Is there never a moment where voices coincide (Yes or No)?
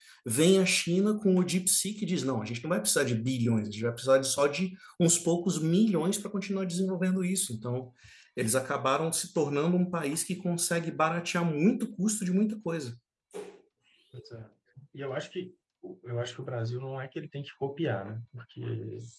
Yes